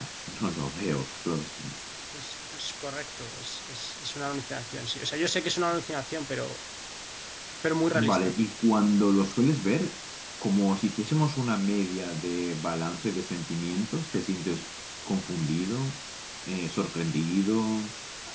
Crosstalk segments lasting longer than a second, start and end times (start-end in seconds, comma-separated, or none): none